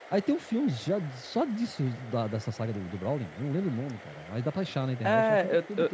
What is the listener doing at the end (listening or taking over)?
taking over